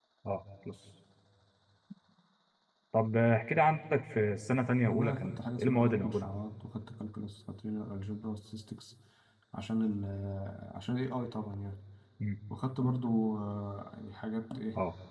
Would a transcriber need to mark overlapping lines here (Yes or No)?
Yes